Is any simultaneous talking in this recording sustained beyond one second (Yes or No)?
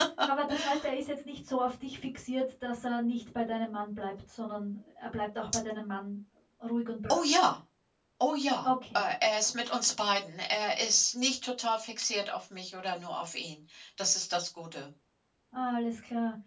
No